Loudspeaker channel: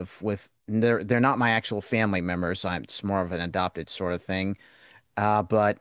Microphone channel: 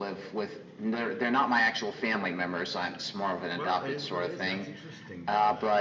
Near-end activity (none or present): present